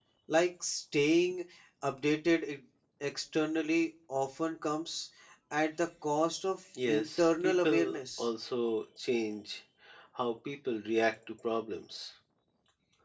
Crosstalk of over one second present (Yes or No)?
Yes